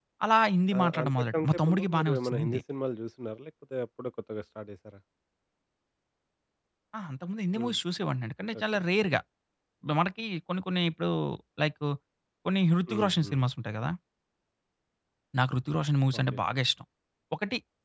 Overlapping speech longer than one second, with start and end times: 0.8-2.6

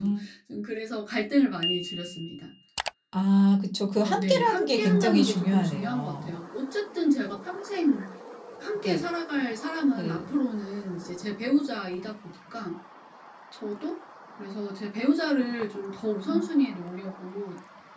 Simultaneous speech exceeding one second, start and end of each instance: 4.0-6.3

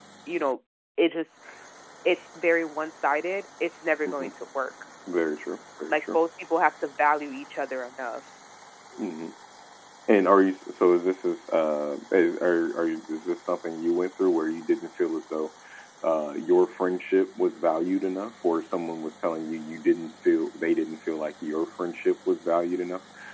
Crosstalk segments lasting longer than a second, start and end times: none

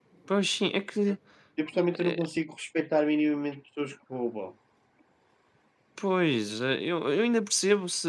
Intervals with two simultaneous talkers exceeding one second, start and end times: none

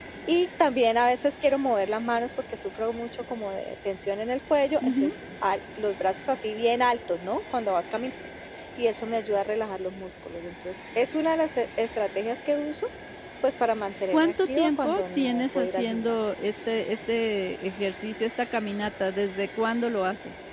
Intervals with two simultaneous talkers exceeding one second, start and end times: 14.1-16.3

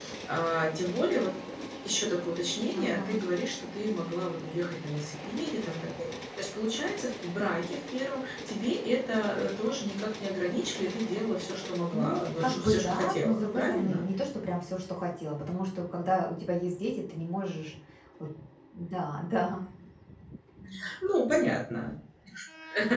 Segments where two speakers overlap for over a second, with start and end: 11.9-14.0

